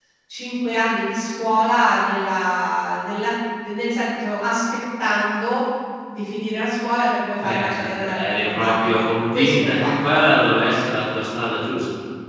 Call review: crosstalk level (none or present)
present